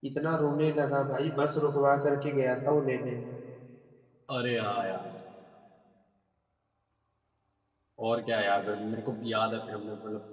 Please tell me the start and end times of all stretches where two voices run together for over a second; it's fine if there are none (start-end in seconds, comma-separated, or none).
none